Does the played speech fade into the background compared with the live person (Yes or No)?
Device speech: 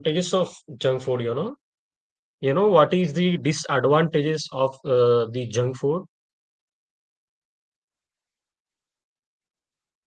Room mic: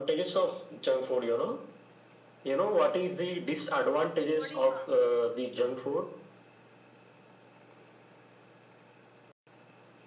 No